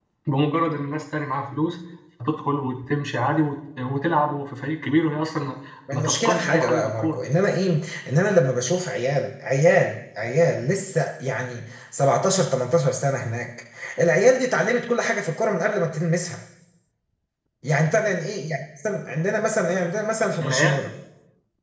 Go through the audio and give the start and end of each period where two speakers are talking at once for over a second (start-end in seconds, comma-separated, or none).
5.9-7.2